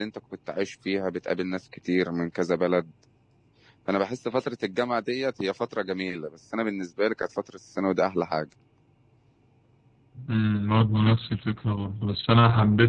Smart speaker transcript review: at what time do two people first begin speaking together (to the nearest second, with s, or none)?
none